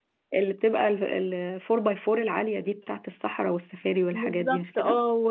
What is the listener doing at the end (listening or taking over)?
taking over